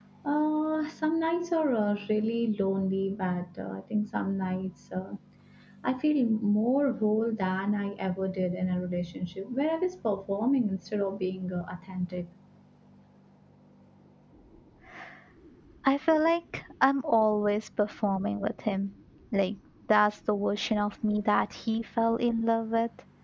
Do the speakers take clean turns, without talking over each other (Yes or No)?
Yes